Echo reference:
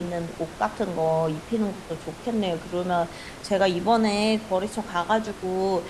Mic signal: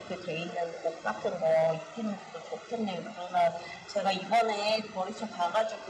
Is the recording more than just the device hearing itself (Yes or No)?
No